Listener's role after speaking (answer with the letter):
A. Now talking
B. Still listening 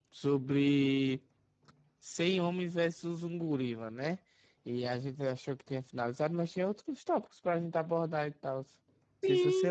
A